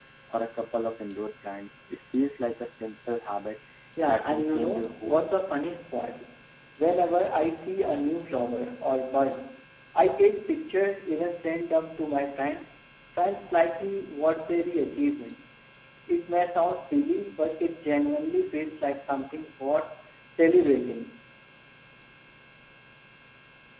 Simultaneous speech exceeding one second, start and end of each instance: 4.1-5.4

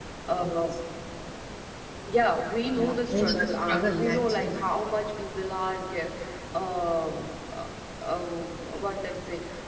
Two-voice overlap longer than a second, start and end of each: 2.7-4.6

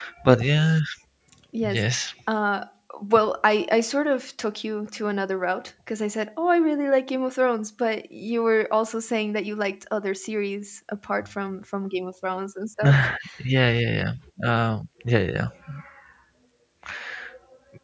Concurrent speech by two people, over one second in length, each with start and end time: none

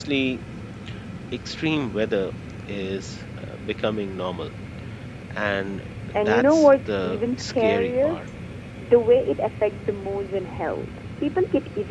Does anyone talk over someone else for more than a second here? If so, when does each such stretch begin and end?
6.1-8.2

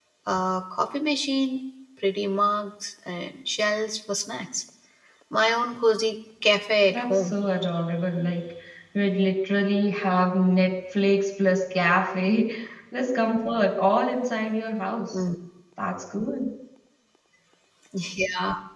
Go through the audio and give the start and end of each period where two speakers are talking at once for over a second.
none

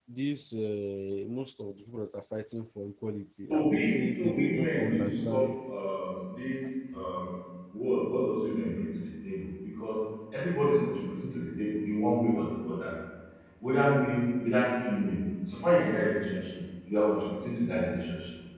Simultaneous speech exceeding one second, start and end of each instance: 3.5-5.5

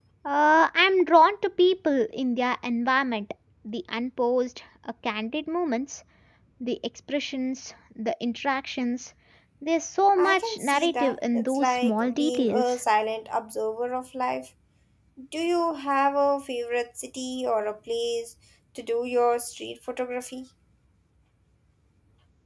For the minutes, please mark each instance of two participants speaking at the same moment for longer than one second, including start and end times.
10.2-12.8

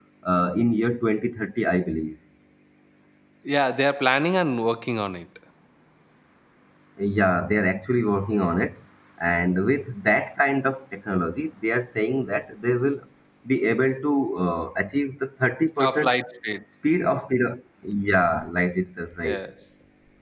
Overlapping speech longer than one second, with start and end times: none

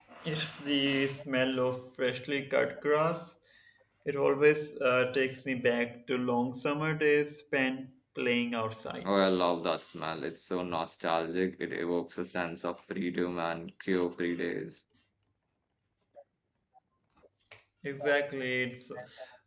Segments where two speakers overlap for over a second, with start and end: none

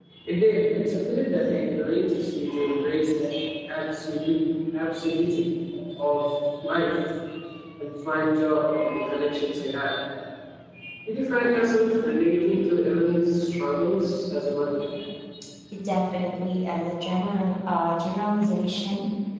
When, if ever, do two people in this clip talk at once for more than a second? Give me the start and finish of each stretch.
none

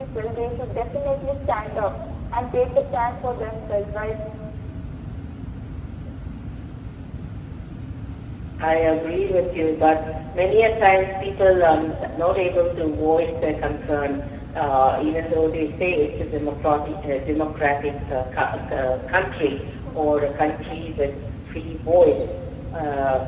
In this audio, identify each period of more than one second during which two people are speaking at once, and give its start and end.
none

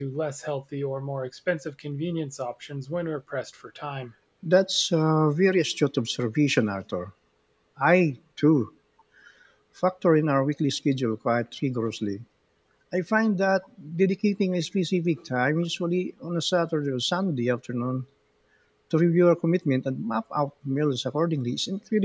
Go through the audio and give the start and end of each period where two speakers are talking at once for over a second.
none

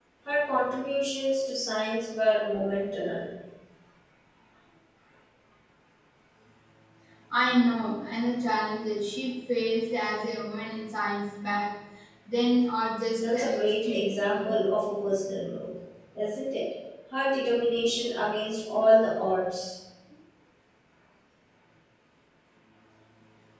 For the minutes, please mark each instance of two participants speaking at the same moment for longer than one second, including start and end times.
13.2-14.5

